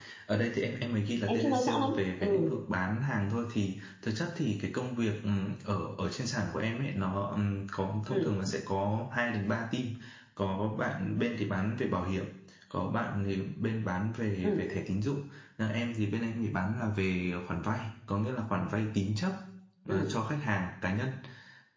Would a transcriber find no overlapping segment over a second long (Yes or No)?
No